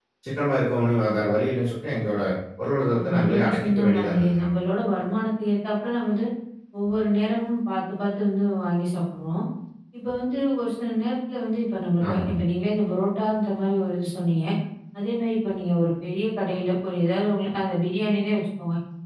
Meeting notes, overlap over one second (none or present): present